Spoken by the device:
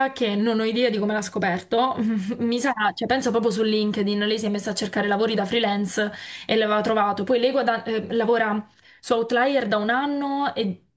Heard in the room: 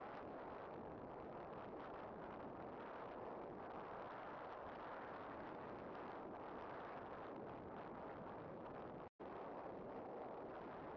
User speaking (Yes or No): No